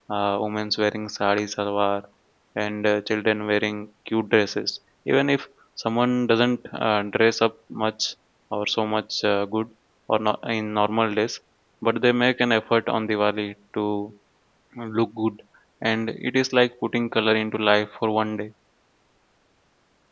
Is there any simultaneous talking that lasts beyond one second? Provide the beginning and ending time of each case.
none

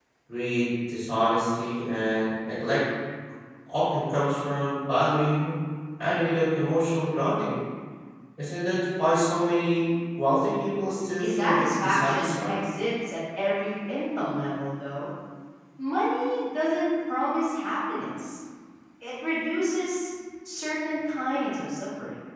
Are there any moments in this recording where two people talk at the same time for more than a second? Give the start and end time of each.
11.1-12.6

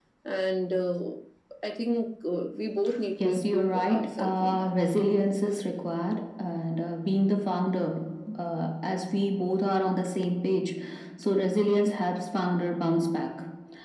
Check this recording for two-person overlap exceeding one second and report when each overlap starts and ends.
3.2-4.7

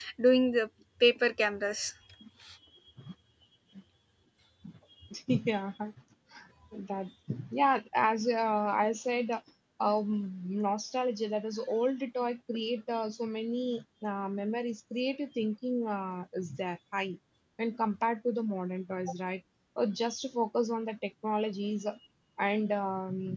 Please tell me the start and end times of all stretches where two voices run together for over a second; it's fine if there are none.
none

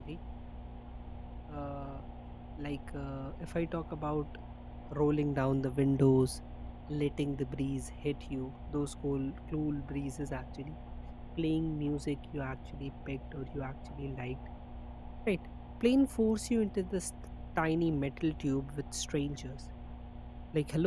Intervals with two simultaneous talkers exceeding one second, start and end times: none

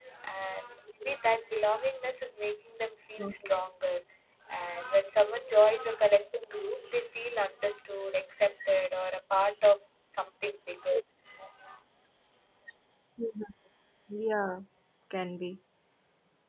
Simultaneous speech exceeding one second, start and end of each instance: none

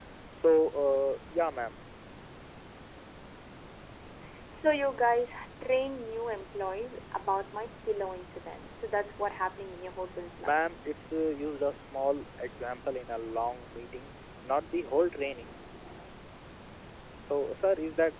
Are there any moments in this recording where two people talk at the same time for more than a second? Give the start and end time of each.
none

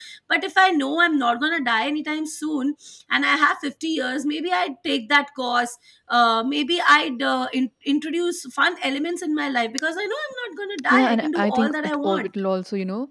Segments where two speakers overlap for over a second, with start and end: 10.9-12.3

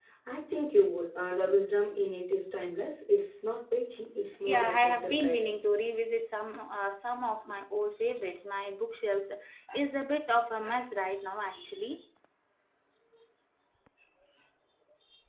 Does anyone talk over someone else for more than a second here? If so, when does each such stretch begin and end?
4.5-5.7

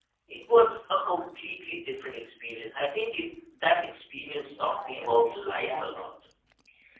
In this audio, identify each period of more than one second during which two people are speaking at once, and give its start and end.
4.5-6.0

